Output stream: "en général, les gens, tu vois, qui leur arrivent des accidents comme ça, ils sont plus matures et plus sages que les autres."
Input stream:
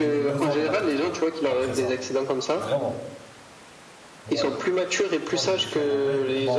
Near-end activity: present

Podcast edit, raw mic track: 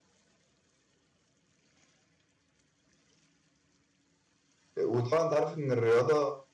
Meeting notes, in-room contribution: present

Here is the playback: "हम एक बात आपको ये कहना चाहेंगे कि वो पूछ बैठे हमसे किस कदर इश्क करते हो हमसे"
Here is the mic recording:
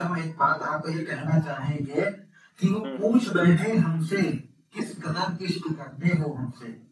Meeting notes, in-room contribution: present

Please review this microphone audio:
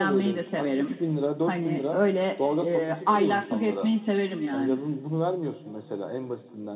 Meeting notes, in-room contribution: none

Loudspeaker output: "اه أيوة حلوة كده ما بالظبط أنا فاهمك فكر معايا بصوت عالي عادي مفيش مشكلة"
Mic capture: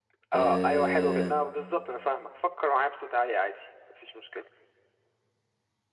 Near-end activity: present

